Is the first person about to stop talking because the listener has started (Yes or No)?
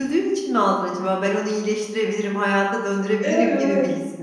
Yes